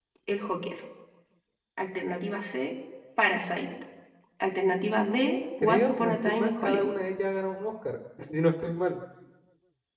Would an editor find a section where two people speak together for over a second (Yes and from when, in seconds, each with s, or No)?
Yes, from 5.6 s